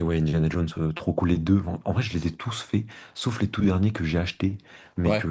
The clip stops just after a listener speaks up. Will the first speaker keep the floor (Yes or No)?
Yes